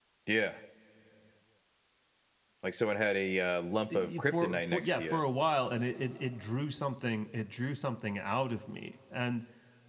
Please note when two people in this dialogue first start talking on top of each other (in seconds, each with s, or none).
3.9 s